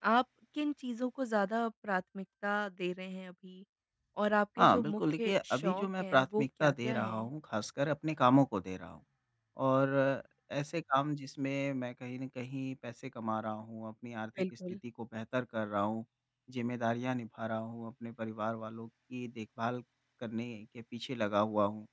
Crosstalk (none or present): present